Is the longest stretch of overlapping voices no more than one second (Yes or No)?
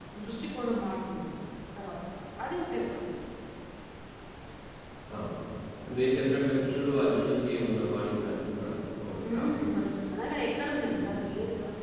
Yes